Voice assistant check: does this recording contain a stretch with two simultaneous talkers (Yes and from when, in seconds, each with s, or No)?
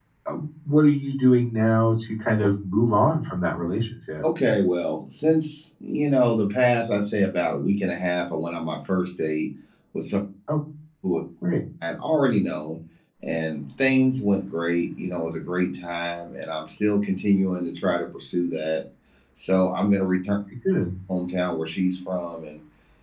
No